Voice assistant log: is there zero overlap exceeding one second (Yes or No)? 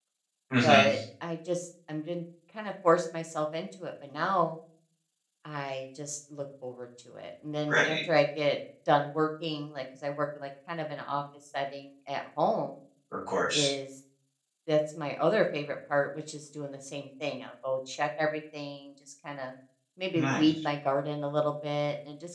Yes